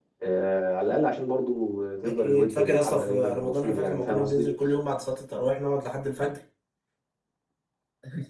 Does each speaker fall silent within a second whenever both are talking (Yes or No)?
No